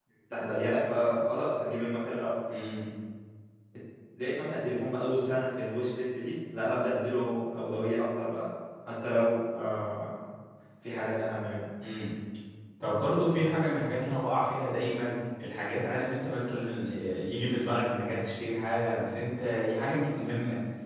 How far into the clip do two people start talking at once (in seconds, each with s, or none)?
none